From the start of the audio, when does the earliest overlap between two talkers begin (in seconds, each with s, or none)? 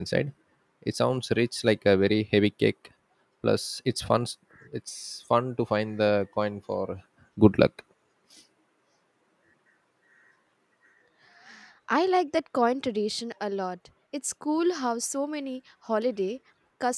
none